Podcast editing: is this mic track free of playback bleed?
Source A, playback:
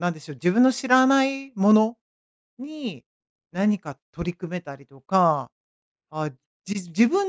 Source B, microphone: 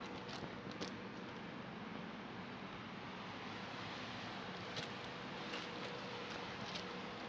Yes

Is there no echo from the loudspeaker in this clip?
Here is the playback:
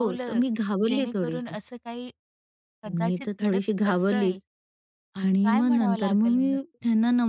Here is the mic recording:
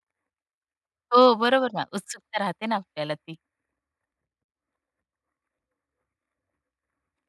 Yes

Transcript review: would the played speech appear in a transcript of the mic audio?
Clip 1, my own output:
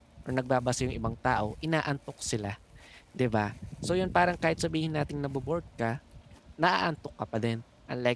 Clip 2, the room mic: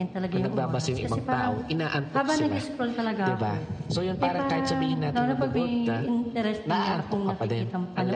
Yes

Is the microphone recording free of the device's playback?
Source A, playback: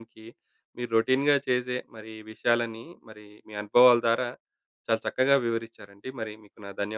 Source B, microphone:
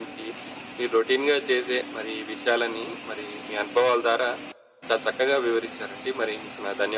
No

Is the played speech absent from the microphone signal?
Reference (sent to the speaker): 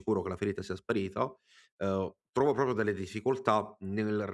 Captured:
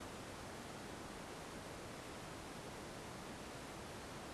Yes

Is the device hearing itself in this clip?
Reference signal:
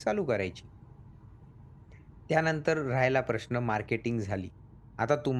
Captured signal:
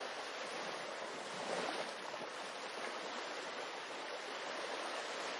No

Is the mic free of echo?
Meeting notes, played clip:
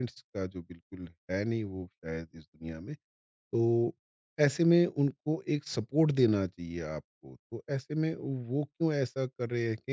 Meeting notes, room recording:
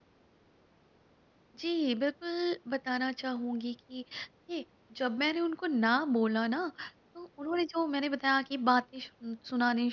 Yes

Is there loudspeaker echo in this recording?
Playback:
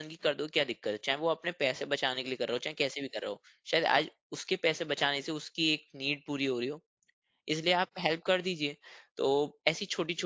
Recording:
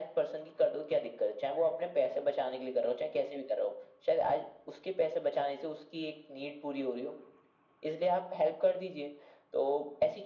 Yes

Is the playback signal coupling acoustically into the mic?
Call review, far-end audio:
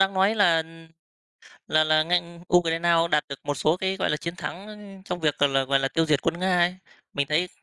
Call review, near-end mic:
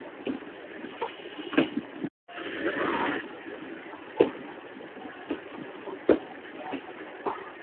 No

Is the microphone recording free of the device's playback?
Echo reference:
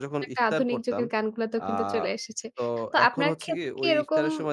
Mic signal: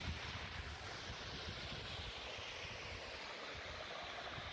Yes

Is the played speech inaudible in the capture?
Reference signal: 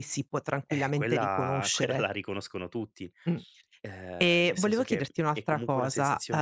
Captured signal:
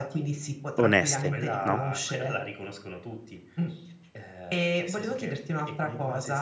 No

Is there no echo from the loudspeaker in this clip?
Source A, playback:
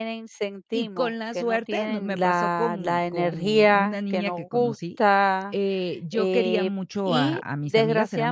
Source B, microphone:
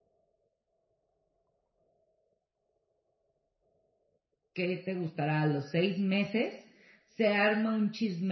Yes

